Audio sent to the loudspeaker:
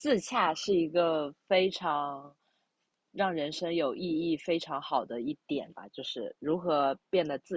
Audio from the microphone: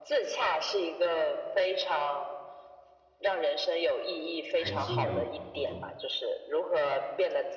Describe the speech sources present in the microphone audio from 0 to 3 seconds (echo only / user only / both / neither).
echo only